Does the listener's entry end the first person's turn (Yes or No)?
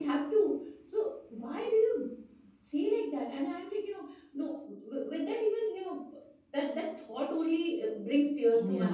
No